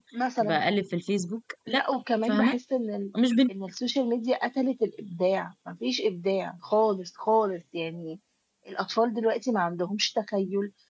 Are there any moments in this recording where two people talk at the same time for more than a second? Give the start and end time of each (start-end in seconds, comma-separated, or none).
none